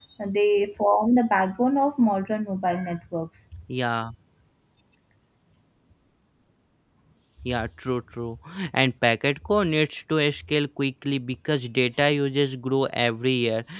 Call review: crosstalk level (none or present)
none